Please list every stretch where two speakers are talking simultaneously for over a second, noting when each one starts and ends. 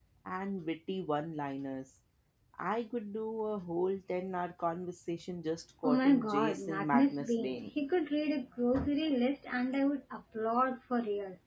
5.8-7.7

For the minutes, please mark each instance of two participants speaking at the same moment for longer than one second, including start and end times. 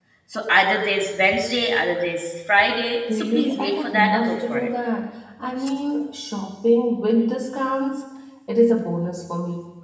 3.1-4.7

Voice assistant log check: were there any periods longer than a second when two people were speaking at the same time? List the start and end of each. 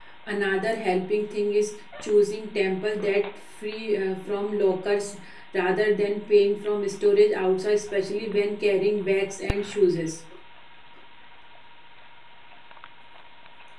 none

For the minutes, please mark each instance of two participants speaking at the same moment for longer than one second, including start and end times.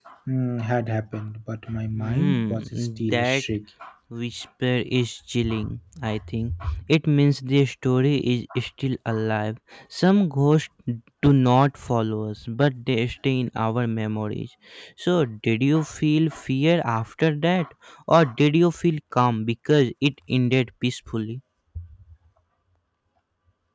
1.9-3.4

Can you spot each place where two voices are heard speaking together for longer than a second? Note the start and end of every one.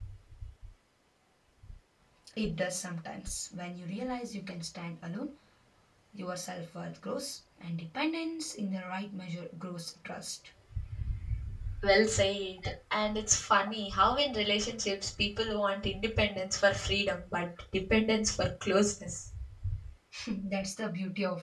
none

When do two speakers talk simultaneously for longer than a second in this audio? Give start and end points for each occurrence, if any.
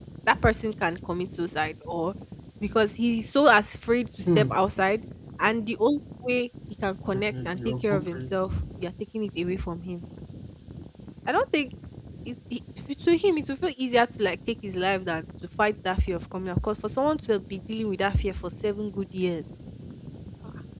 7.1-8.3

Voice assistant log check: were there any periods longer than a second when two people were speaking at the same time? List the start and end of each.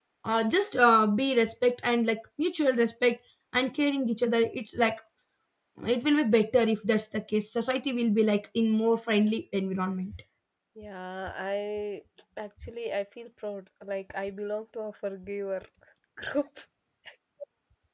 none

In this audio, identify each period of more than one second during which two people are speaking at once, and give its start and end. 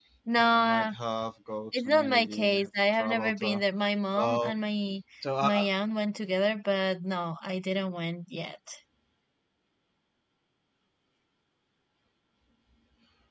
1.8-3.6

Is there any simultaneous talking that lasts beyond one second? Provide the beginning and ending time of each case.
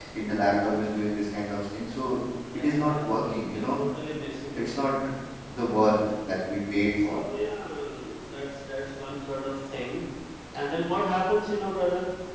2.5-3.8

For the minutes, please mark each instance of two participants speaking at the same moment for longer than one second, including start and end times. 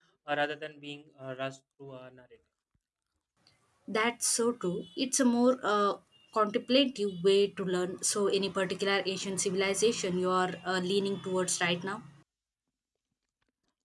none

